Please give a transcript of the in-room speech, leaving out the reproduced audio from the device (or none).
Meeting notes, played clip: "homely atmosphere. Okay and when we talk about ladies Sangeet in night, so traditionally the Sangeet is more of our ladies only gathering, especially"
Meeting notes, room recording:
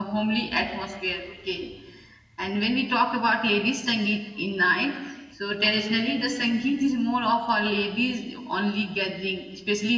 none